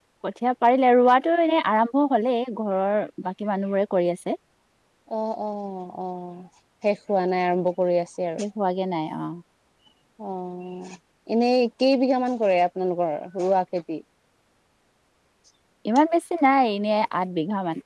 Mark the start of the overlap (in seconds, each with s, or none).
none